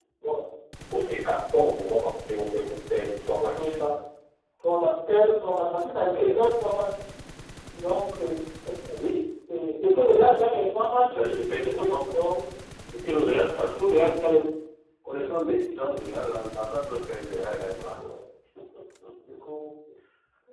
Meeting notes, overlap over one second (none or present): none